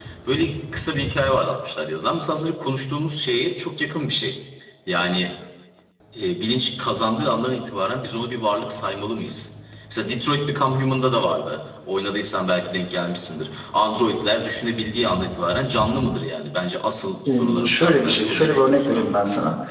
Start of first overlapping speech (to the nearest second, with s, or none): 17 s